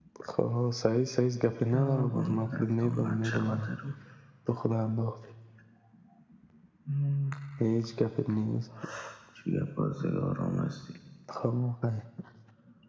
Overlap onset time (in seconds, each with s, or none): 1.7 s